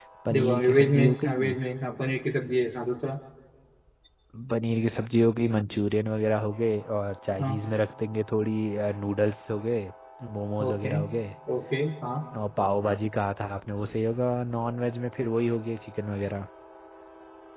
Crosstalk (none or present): present